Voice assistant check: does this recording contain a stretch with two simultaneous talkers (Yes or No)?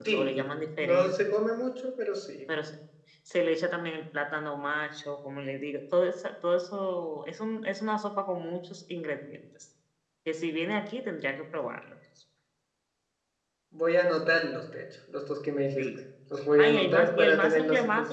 Yes